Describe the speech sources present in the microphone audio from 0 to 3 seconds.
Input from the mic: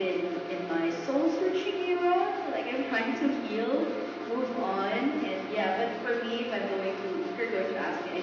echo only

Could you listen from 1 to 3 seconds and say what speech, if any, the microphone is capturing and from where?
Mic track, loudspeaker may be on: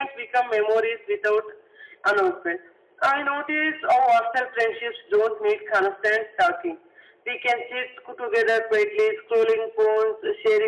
echo only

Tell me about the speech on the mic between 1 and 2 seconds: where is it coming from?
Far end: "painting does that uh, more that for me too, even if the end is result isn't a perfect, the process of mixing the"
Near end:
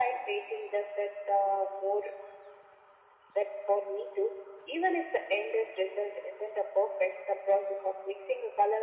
echo only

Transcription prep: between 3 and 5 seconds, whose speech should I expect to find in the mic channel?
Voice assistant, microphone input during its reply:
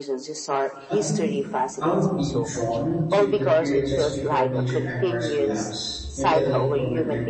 both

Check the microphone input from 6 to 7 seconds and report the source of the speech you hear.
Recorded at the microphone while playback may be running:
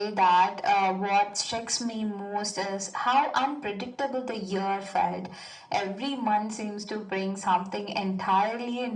echo only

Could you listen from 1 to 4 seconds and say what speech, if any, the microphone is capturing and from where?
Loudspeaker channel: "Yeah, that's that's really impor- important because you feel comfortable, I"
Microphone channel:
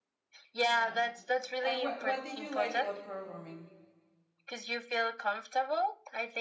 both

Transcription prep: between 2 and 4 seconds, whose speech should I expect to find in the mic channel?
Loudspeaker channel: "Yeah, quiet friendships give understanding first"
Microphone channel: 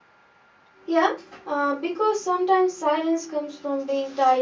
user only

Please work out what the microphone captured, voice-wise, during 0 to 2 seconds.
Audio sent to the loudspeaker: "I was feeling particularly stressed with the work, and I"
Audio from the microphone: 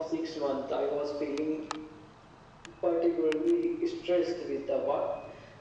echo only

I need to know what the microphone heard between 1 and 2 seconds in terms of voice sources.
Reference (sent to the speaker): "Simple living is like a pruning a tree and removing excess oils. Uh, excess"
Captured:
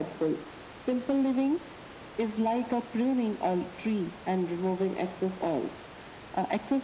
echo only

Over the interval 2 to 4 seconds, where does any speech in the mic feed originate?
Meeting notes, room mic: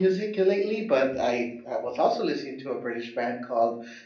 user only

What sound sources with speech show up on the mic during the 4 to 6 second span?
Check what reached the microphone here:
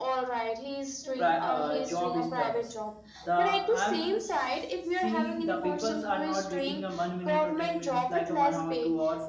both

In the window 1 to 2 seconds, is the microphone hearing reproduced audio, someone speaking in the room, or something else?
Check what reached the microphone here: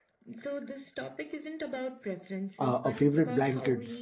echo only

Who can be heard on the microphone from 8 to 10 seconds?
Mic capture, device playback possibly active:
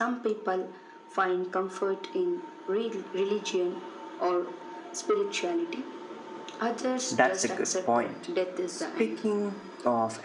both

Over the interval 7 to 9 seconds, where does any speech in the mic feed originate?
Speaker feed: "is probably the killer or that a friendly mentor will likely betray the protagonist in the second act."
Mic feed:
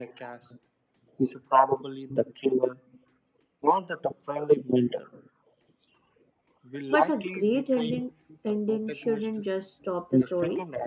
both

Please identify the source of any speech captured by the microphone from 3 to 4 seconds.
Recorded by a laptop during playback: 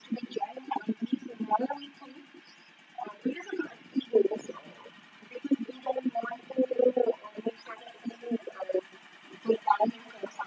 echo only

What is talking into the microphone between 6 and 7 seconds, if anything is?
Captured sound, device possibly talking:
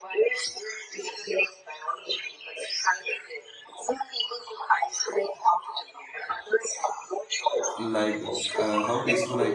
echo only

